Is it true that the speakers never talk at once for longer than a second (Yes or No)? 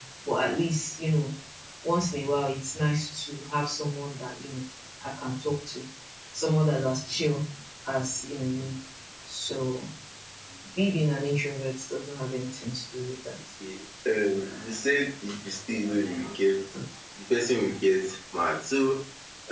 Yes